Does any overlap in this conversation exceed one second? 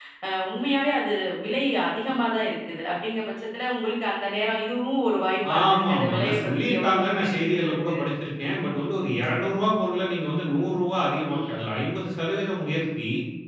Yes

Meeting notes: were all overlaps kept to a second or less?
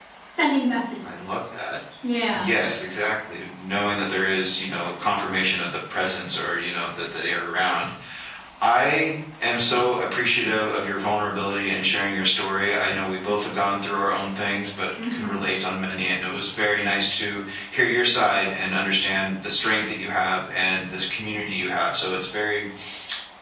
Yes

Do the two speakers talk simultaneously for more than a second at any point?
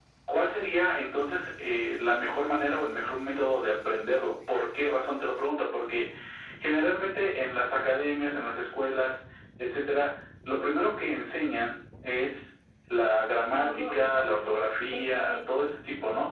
Yes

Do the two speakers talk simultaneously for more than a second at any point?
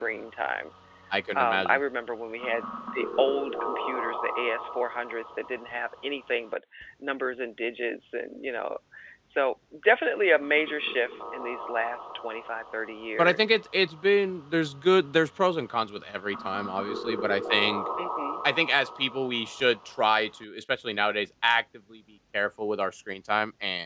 No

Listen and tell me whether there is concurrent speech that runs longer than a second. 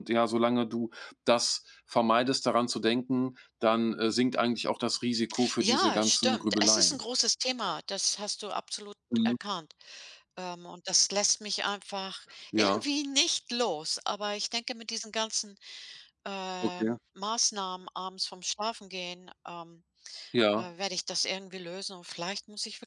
Yes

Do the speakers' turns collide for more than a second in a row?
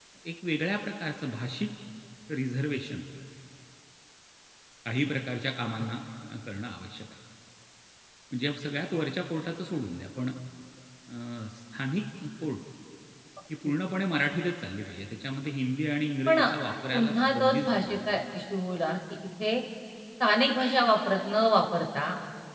Yes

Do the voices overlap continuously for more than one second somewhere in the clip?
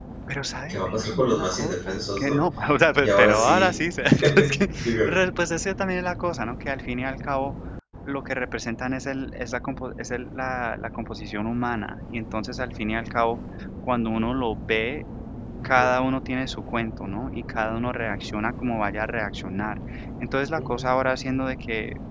Yes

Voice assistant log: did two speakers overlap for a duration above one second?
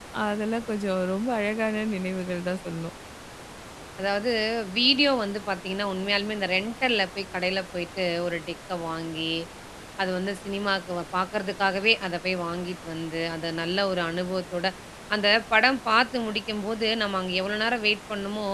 No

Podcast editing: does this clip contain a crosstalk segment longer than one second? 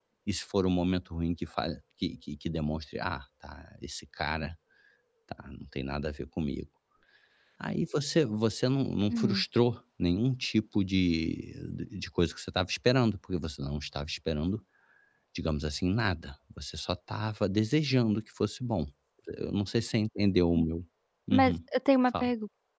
No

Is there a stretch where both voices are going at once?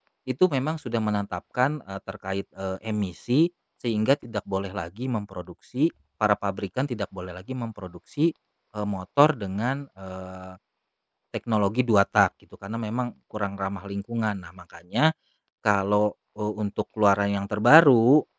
No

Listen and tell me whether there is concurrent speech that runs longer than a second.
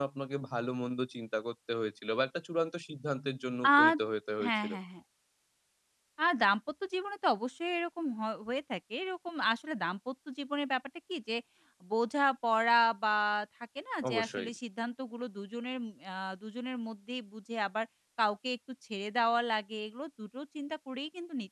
No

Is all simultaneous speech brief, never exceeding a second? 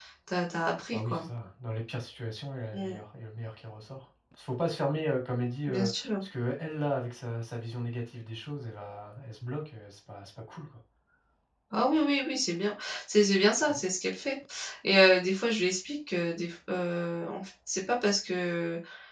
Yes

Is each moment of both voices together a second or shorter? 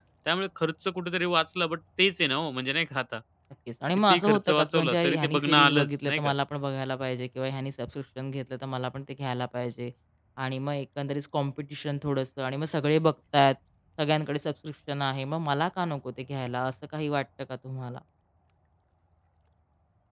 No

